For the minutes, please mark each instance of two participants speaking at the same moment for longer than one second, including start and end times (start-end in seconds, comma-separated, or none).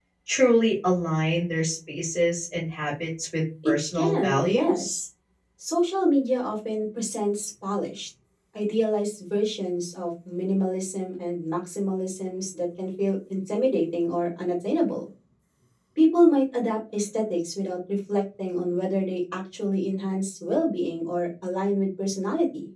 3.6-5.0